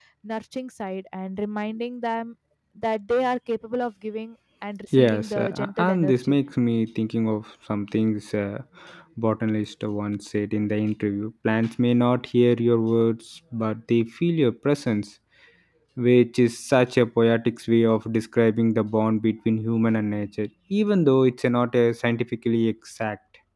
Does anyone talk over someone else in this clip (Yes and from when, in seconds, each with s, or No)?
Yes, from 4.9 s